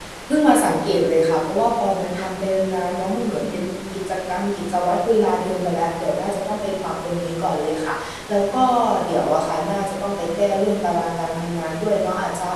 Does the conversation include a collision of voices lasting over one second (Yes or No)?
No